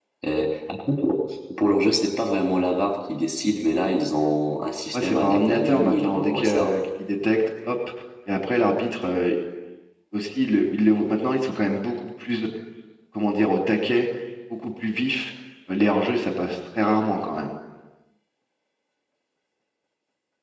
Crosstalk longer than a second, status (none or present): present